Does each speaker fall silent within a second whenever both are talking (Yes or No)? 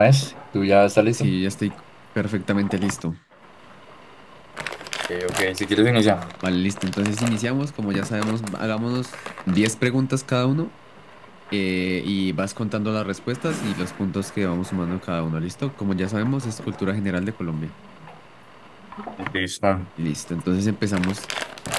Yes